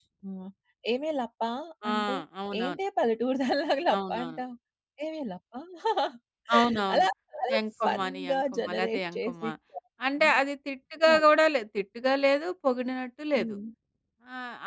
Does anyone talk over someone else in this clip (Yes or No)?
Yes